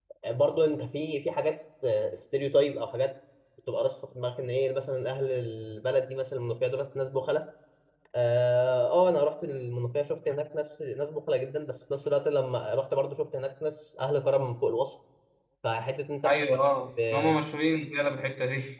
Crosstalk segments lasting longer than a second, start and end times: none

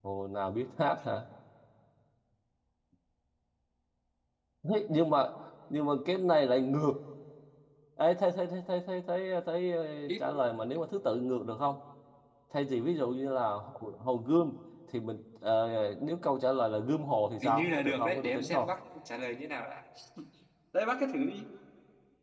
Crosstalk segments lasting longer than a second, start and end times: 17.4-18.7

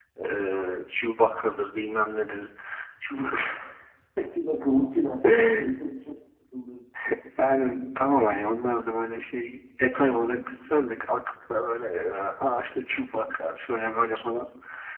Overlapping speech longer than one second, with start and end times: none

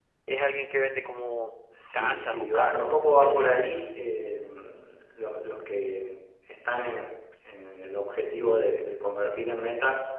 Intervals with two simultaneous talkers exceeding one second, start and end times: 1.9-3.5

